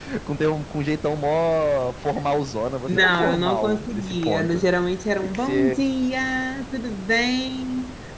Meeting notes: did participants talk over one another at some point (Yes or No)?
Yes